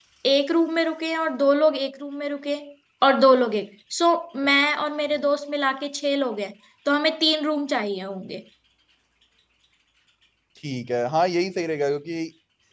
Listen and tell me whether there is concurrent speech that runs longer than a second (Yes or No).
No